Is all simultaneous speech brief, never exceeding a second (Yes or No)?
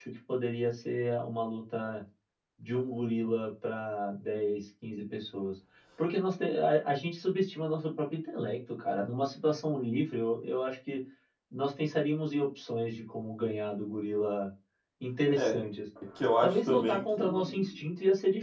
No